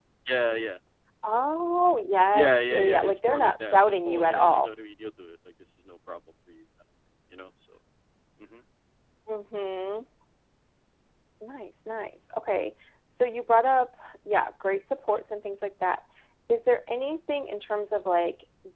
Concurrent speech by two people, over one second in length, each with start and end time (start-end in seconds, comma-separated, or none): 2.3-4.7